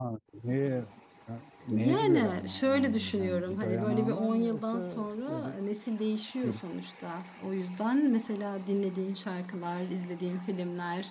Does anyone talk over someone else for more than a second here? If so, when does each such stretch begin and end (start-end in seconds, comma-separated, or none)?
1.7-5.6